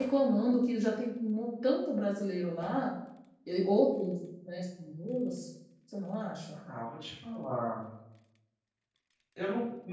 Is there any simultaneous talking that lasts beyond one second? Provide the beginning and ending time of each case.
none

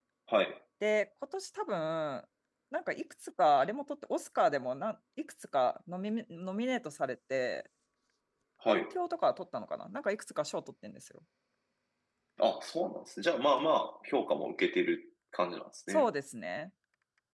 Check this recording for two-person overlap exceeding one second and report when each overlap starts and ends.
none

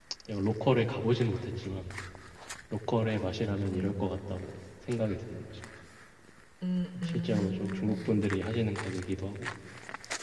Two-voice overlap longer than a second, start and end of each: 7.1-8.3

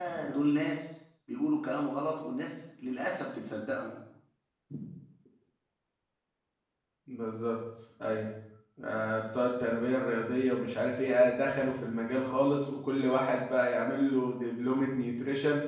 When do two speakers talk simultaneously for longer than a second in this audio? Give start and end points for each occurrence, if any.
none

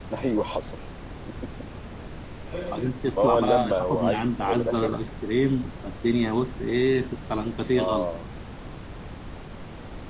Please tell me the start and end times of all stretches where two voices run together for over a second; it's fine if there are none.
3.2-5.0

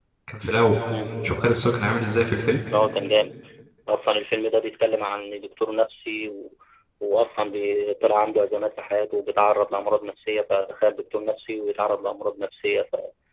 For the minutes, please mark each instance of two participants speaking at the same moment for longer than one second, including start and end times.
none

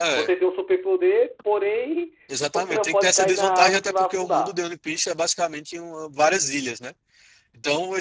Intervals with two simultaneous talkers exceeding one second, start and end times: 2.5-4.5

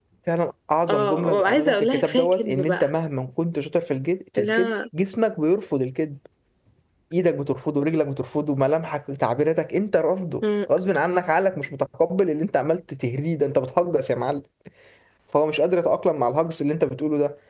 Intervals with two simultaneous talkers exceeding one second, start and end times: 0.9-2.9

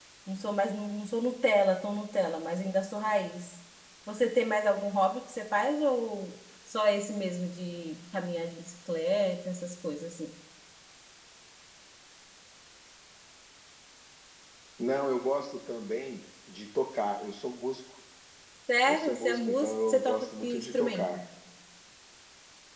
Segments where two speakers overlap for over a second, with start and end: 18.9-21.2

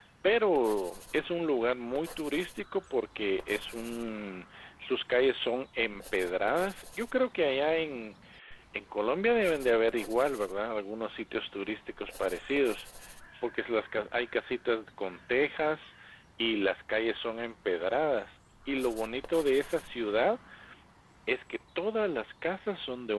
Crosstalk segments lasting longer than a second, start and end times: none

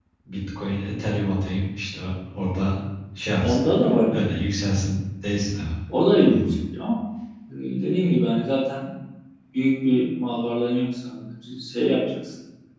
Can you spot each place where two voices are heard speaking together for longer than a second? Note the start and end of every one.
none

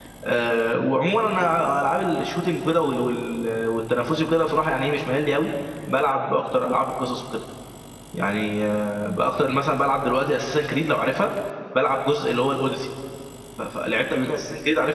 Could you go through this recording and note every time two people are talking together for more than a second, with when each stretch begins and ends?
none

